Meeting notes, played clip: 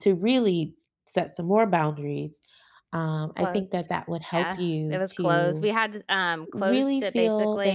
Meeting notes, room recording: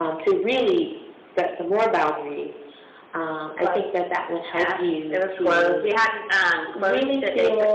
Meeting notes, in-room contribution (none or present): none